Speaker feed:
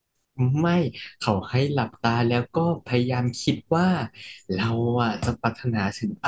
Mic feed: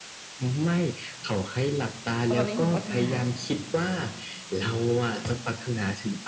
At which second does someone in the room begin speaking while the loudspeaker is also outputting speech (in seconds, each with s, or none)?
2.3 s